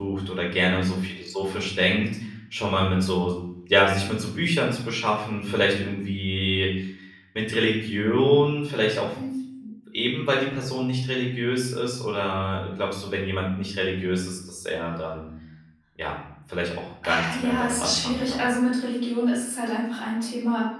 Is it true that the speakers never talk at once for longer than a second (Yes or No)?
No